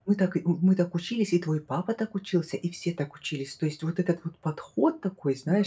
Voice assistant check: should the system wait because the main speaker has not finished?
Yes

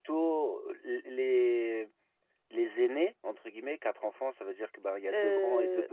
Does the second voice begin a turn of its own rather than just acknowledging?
Yes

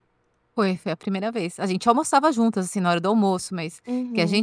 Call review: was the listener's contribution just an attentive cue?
Yes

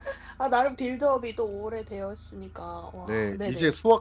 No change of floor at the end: No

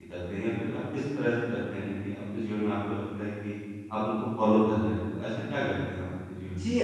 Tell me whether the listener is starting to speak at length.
Yes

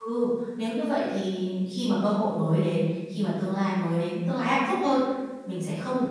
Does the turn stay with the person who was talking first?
Yes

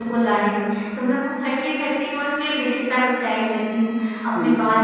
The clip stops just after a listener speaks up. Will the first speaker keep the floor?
Yes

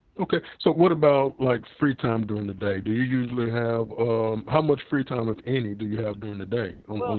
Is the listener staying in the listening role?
No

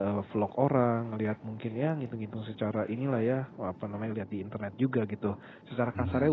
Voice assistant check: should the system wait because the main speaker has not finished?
Yes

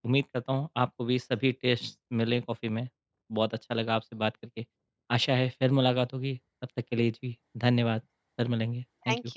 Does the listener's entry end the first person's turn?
Yes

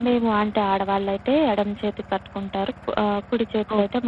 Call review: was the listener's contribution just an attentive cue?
No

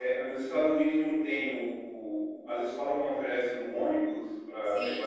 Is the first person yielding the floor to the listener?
Yes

